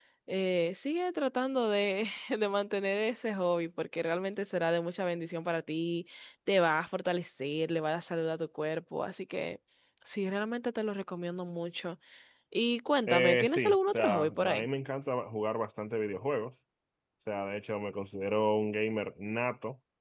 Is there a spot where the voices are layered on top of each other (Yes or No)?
Yes